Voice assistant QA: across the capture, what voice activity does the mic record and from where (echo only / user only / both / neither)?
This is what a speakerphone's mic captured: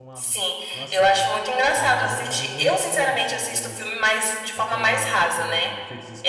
both